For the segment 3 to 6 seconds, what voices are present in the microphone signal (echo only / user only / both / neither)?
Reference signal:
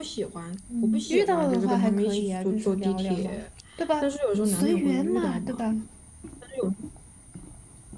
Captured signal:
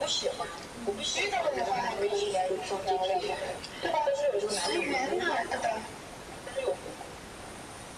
echo only